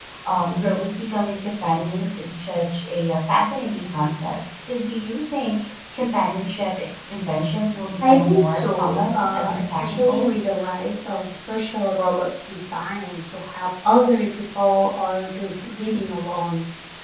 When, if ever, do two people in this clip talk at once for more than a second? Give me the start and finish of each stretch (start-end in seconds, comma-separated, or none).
8.0-10.3